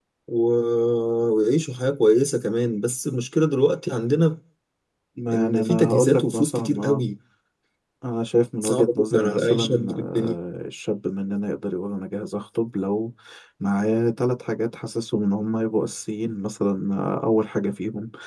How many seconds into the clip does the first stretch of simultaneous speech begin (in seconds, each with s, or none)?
5.3 s